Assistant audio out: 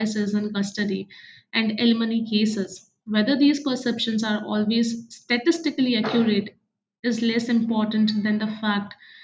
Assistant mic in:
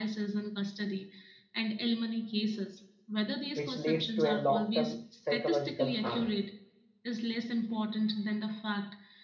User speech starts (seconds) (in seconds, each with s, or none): 3.5 s